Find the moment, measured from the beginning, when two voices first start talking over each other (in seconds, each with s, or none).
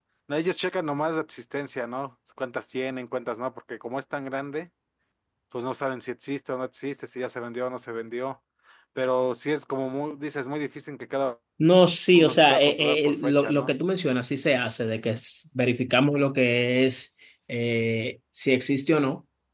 12.1 s